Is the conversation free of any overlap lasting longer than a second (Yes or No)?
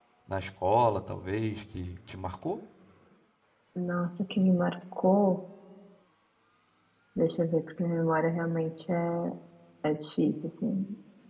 Yes